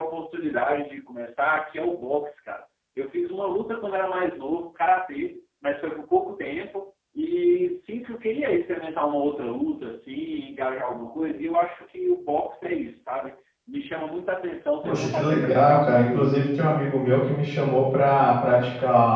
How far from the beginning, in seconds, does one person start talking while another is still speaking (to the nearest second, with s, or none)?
15 s